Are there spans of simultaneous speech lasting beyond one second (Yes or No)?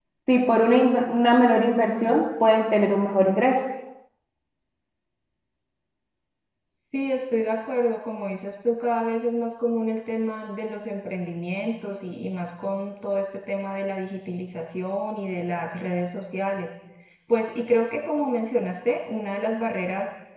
No